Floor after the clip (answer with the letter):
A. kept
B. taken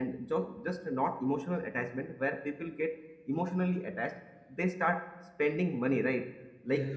A